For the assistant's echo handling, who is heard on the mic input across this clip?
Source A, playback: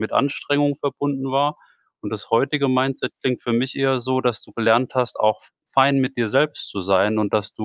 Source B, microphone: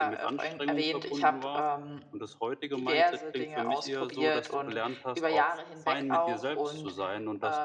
both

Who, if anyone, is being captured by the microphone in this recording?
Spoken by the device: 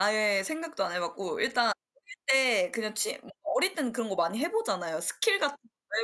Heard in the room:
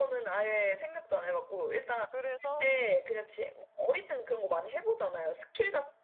both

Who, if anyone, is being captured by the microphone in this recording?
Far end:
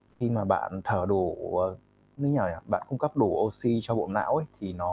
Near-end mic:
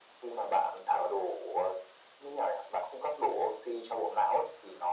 echo only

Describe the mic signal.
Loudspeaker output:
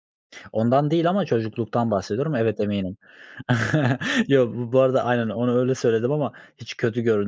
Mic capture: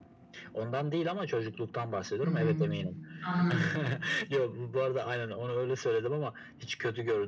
both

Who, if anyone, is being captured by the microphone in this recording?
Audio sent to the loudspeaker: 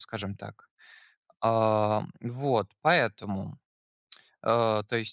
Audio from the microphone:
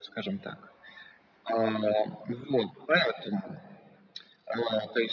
echo only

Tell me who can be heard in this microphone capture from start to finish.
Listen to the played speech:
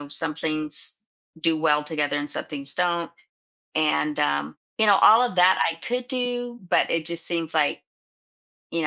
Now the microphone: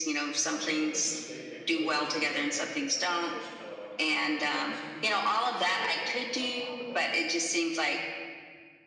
both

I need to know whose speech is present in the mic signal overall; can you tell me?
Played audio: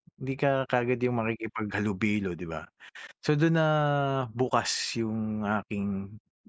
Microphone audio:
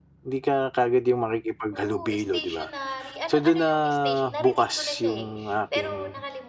both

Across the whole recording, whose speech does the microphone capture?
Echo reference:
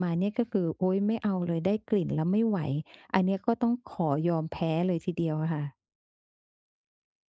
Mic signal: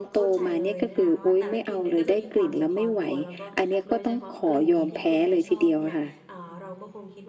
both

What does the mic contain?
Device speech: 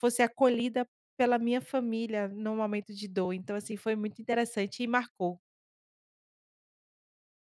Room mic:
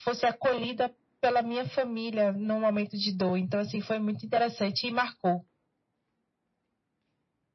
echo only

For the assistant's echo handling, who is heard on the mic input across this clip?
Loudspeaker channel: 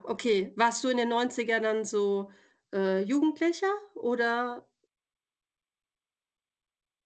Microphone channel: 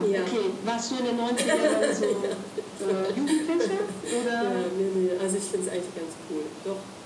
both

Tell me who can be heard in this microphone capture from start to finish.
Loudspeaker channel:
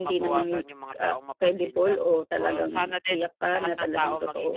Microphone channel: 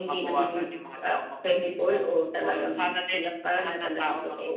echo only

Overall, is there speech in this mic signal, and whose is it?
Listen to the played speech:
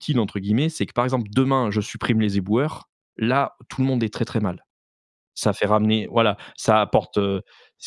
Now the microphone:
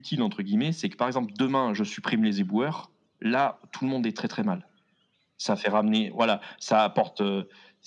echo only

